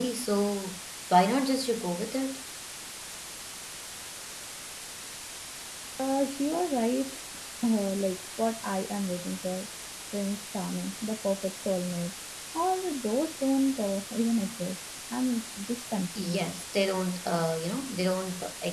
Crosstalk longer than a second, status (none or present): none